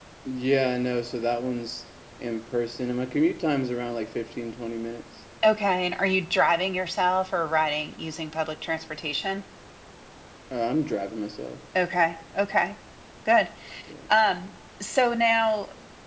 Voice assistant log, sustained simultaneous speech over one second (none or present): none